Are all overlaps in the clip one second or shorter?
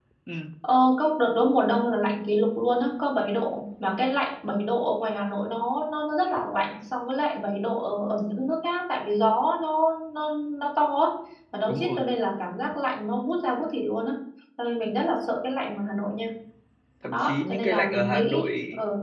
No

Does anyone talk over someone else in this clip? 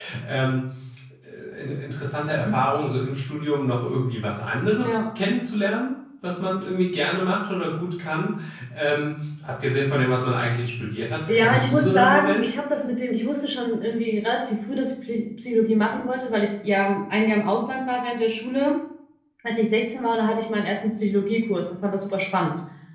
Yes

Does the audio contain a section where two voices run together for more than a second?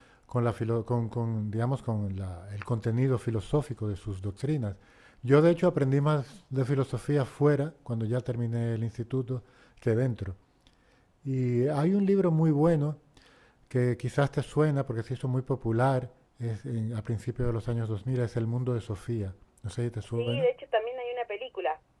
No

